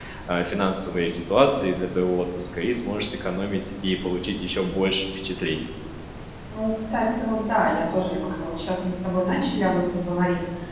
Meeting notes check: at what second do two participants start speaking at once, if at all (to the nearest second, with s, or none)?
none